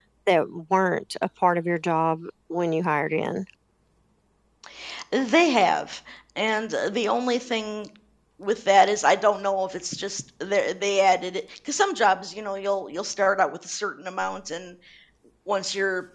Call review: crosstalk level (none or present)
none